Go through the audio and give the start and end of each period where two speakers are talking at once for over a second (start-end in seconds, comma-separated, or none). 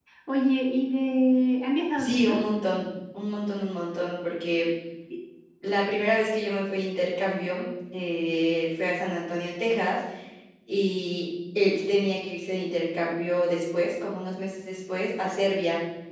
none